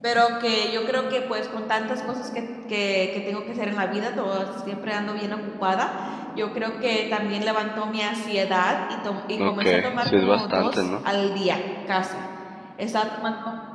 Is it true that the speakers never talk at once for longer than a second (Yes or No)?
No